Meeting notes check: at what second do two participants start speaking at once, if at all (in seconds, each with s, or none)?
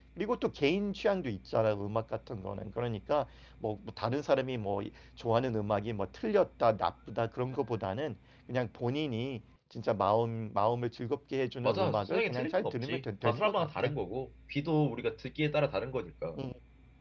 11.6 s